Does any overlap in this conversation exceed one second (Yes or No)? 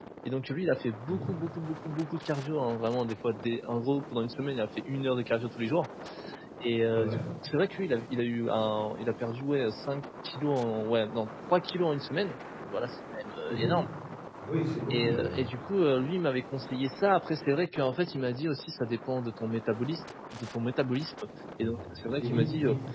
No